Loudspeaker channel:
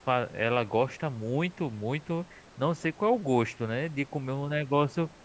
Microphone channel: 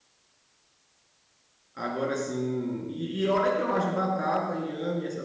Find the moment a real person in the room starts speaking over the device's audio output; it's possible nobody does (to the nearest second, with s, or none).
2 s